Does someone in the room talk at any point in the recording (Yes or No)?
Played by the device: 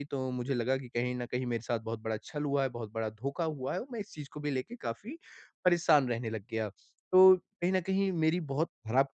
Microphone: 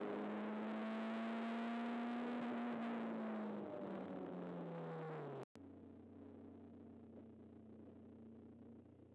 No